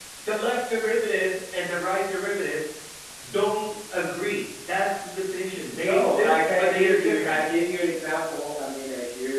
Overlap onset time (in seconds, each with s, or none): 5.7 s